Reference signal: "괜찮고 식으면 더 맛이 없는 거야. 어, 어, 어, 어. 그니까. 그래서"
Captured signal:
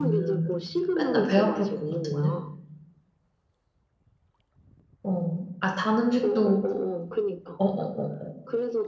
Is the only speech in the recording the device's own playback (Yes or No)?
No